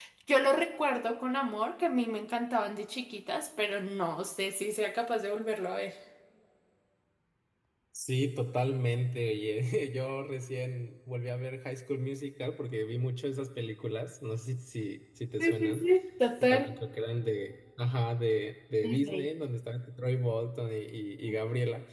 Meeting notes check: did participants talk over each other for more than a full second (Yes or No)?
No